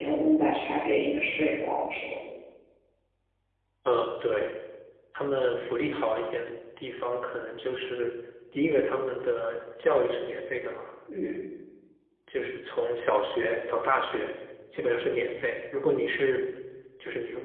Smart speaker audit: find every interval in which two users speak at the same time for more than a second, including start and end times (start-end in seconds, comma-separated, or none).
none